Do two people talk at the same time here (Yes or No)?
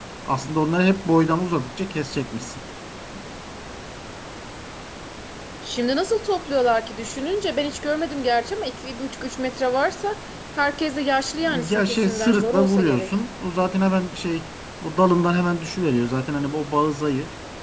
Yes